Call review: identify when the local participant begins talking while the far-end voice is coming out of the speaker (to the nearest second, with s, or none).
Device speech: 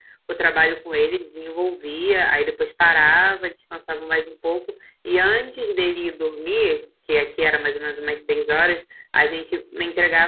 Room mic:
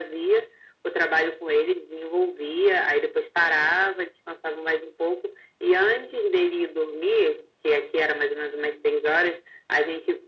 none